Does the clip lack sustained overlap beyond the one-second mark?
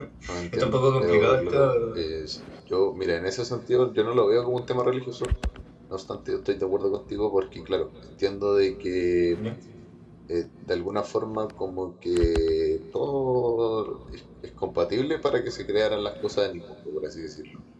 No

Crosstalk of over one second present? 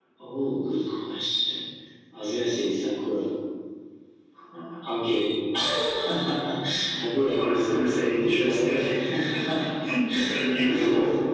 Yes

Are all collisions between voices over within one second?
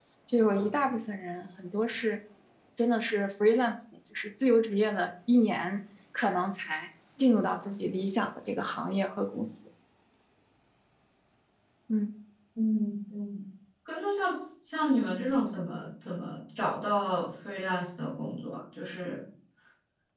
Yes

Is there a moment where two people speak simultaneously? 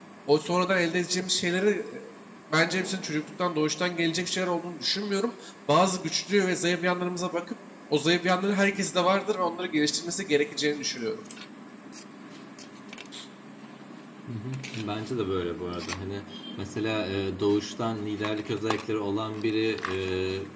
No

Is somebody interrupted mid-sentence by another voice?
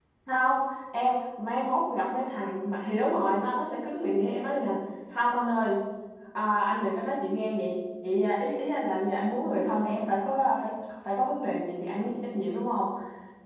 No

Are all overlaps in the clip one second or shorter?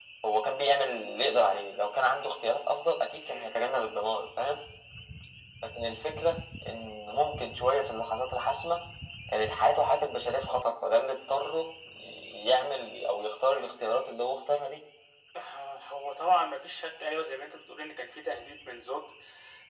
Yes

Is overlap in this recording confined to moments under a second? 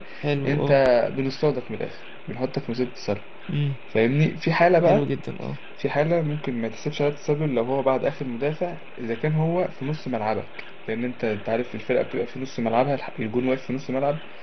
Yes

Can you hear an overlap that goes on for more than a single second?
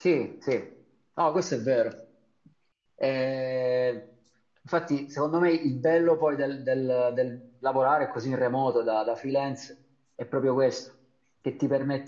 No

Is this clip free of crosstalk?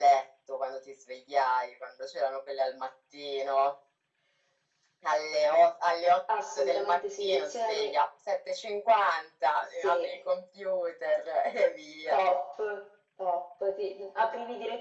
No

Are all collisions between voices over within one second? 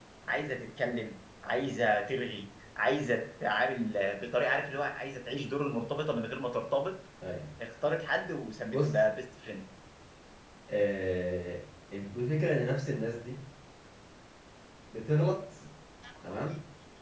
Yes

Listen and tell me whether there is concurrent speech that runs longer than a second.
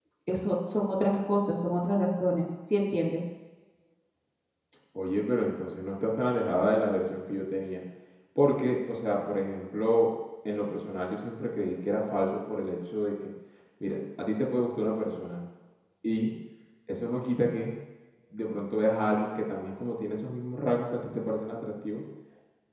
No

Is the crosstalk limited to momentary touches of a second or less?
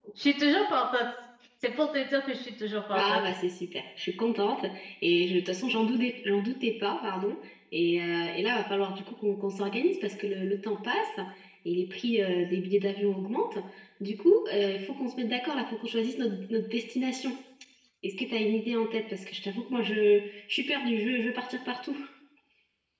Yes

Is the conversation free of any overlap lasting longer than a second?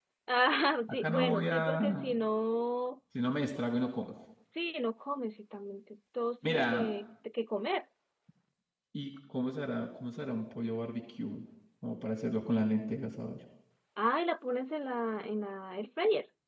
No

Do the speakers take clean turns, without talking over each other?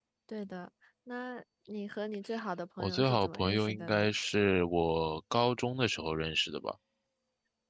No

